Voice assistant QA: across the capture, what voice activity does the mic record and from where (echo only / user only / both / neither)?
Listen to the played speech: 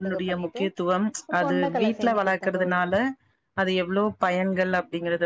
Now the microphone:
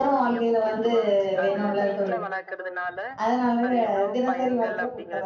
both